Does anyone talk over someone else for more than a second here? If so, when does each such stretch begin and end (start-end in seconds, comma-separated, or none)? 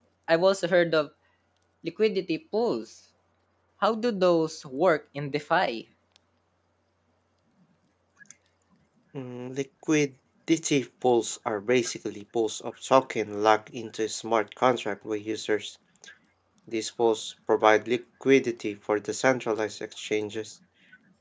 none